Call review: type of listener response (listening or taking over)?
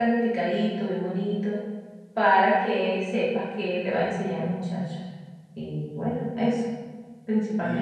taking over